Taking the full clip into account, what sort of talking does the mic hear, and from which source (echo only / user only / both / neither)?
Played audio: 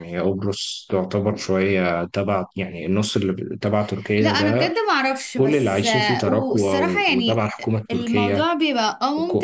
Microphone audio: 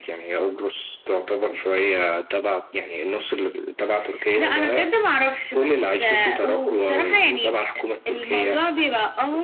echo only